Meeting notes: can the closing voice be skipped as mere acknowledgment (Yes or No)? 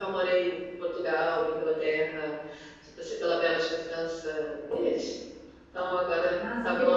No